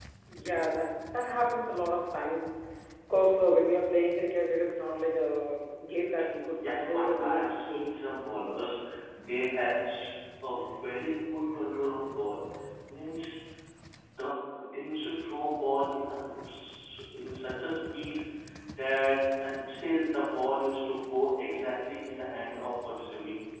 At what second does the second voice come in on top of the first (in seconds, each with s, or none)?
6.6 s